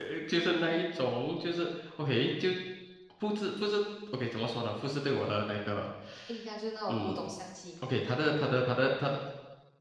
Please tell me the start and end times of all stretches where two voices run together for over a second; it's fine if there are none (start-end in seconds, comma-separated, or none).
none